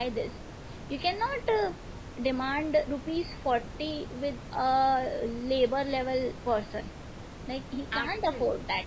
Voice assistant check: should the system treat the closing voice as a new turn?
No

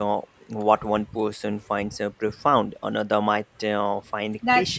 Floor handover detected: Yes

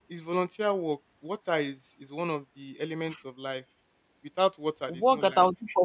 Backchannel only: No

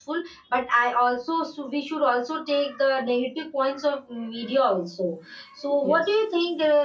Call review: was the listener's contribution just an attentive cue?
Yes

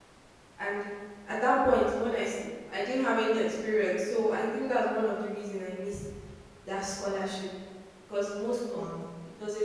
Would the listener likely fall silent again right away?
Yes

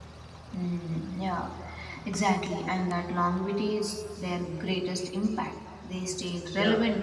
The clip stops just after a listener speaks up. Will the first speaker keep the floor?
Yes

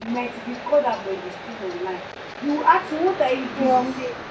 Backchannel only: Yes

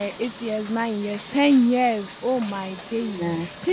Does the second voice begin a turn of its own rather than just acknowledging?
No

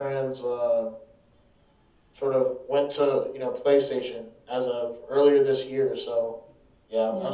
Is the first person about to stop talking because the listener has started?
No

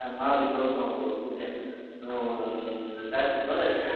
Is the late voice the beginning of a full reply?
Yes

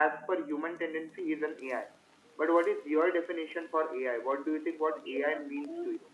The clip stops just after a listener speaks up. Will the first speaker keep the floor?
No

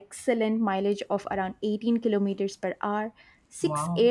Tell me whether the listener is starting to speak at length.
No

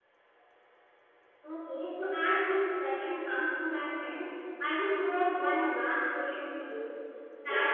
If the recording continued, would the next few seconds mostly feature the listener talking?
No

